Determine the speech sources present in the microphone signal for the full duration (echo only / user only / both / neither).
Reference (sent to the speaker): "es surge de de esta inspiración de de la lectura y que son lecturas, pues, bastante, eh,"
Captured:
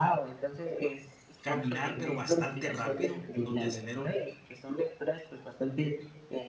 both